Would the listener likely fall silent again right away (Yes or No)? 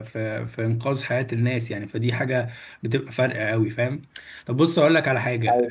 Yes